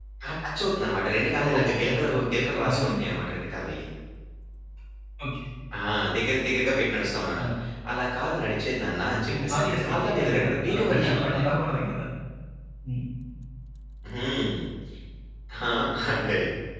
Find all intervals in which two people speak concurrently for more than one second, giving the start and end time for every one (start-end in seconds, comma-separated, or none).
1.4-3.0, 9.3-11.5